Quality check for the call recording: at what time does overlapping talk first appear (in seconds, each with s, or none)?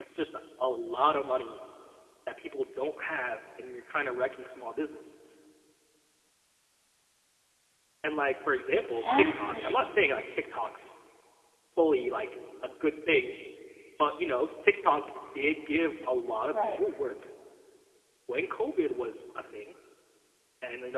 8.7 s